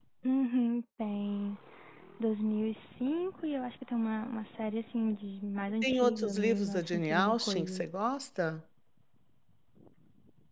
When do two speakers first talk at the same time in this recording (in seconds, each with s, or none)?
5.8 s